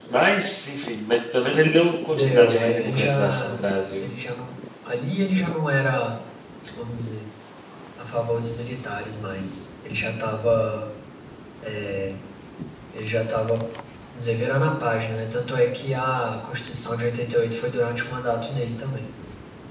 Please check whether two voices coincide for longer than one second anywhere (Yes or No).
Yes